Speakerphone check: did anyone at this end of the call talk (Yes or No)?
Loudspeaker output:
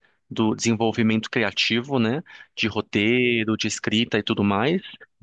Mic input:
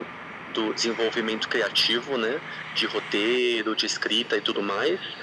No